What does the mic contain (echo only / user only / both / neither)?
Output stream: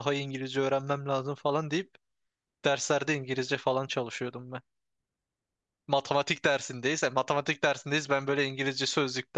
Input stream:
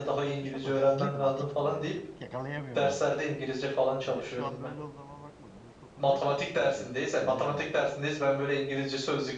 both